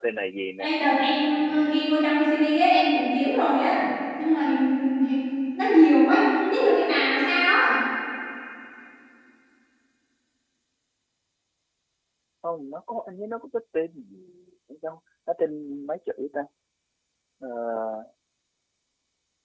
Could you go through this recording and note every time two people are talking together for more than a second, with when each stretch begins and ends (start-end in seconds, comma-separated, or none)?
none